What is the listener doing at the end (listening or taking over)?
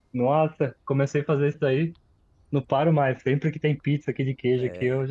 listening